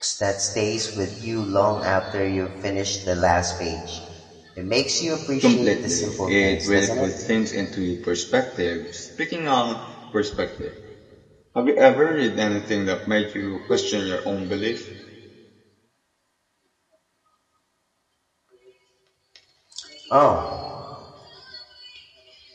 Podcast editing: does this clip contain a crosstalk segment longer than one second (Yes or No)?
Yes